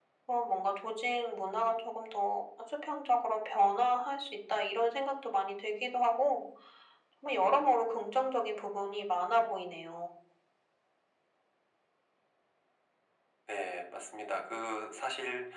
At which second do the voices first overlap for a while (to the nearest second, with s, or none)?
none